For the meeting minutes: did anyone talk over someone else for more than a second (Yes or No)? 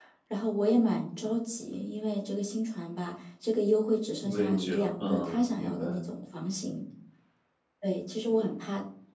Yes